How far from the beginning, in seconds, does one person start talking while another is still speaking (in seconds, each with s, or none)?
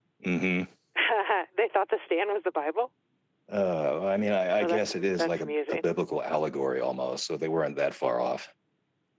4.6 s